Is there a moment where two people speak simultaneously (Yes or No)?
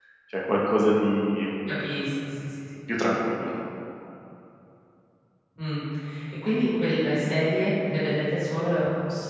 No